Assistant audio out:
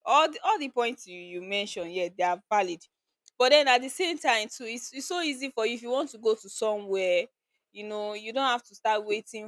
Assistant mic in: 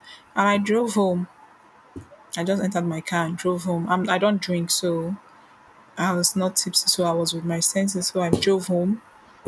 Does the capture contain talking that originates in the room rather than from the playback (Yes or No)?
Yes